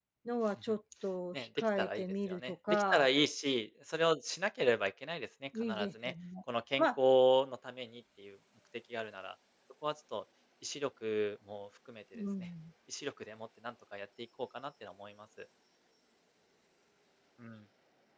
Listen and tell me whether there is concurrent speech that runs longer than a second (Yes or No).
Yes